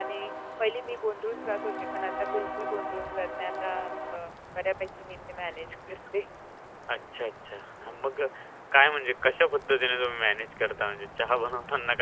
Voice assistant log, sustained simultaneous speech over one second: none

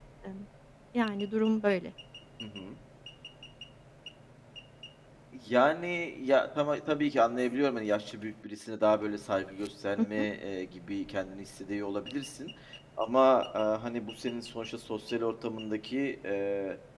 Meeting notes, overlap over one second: none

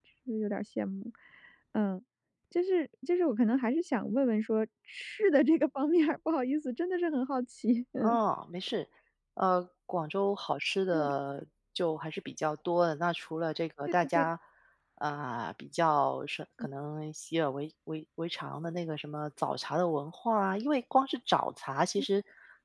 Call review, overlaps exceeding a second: none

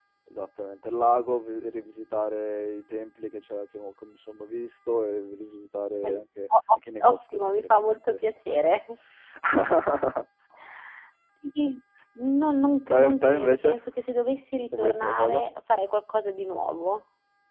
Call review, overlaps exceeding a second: present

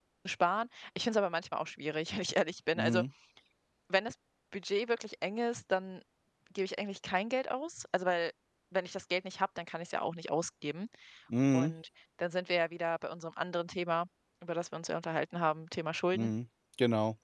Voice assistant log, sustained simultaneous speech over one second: none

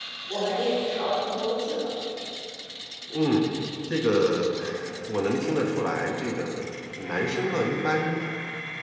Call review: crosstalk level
none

